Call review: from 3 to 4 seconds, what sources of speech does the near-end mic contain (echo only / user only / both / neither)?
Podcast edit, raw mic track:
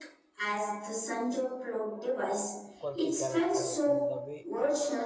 both